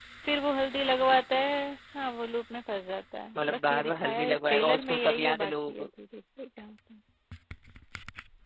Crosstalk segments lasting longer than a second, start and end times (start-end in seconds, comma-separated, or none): 3.4-5.9